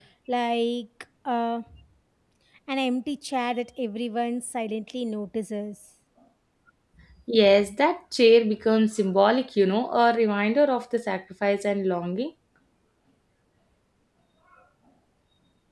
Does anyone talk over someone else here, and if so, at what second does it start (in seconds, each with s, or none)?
none